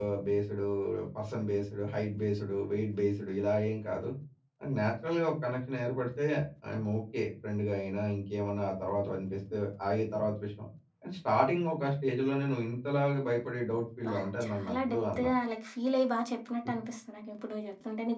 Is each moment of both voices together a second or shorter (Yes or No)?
No